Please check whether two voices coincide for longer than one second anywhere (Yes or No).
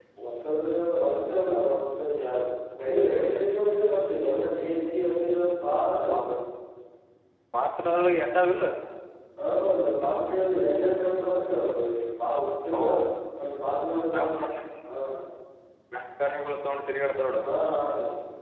No